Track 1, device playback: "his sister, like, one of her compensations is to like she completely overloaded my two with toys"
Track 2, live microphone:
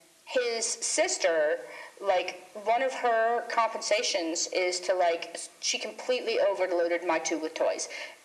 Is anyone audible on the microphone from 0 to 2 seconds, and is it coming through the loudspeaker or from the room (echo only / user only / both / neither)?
echo only